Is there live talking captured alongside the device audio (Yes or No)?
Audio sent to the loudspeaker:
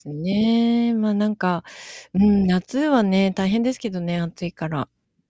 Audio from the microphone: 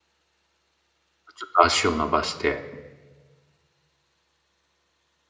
Yes